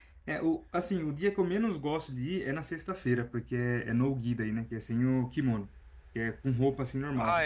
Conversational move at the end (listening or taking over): taking over